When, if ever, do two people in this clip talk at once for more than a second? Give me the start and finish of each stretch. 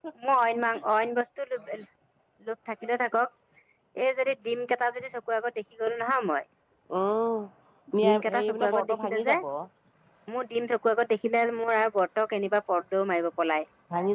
8.0-9.3

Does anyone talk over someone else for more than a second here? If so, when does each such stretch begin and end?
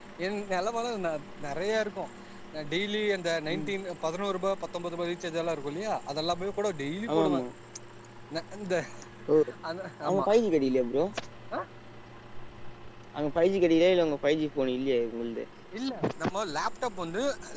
none

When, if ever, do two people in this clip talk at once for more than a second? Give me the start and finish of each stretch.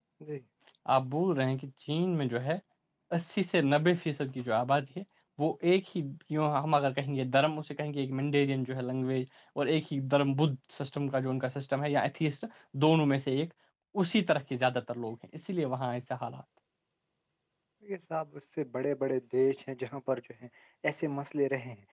none

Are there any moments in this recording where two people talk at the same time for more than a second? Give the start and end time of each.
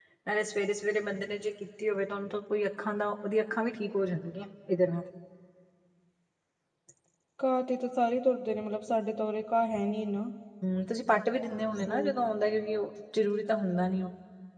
none

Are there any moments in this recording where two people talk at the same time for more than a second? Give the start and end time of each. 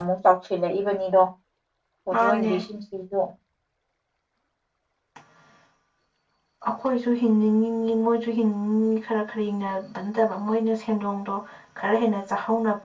none

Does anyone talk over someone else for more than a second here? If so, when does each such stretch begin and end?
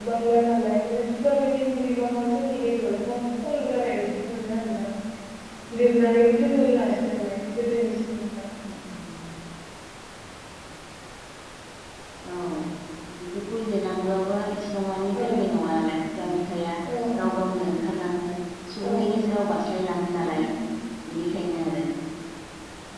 none

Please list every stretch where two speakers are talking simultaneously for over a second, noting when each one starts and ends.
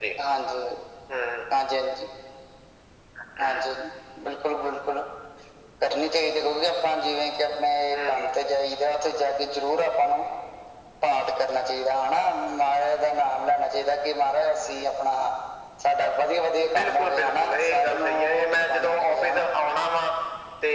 16.7-19.5

